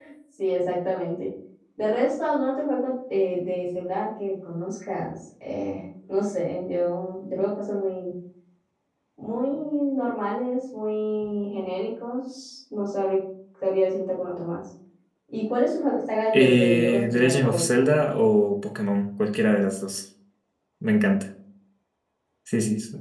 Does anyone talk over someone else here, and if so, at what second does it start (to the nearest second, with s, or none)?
16 s